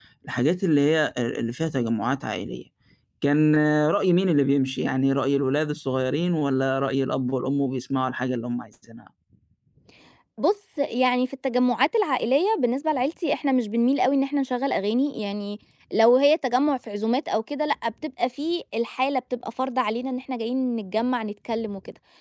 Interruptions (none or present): none